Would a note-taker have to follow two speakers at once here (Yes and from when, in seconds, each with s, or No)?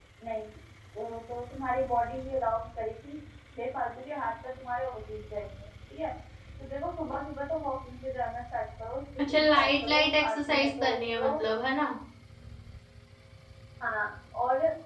Yes, from 9.2 s